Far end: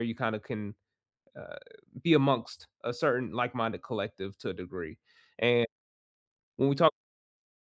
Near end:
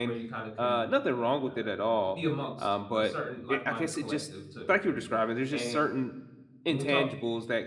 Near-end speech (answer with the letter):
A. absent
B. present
B